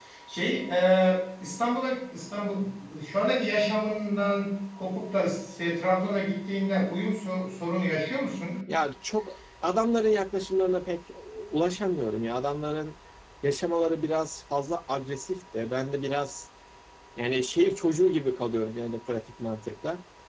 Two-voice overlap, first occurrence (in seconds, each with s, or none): none